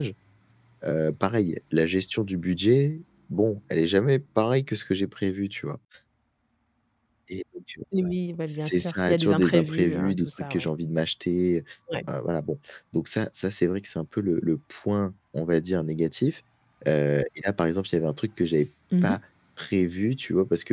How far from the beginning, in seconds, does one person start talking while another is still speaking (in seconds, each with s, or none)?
8.5 s